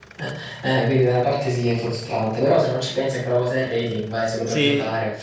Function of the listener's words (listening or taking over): taking over